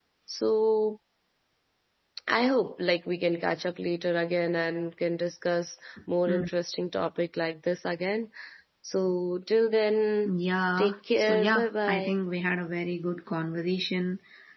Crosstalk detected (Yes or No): Yes